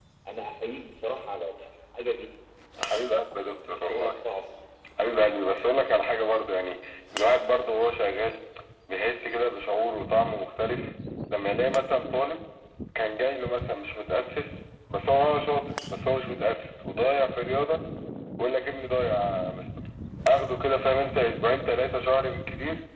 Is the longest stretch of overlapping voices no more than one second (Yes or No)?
No